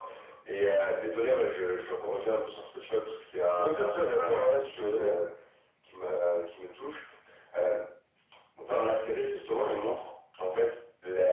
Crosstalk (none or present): present